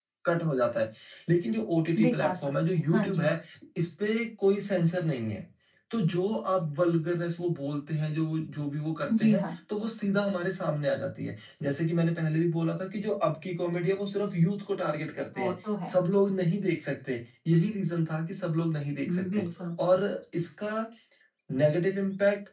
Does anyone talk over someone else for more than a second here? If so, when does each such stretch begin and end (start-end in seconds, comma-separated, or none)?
2.0-3.3